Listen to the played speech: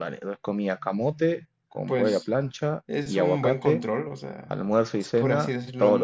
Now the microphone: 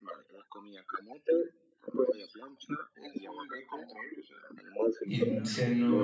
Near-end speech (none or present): present